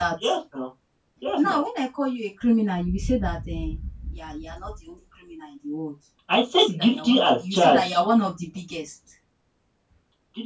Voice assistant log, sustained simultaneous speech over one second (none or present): present